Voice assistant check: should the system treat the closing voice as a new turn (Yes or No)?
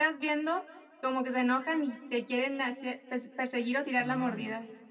Yes